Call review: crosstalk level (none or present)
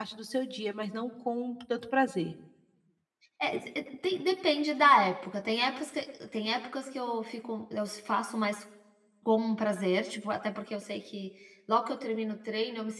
none